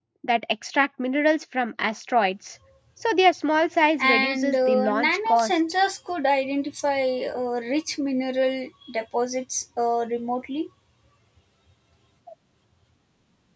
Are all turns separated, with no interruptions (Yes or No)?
No